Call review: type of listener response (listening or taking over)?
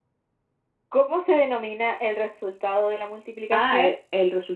taking over